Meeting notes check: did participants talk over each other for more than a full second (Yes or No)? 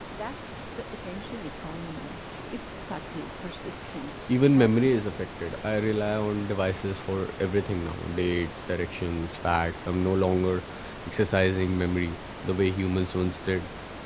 Yes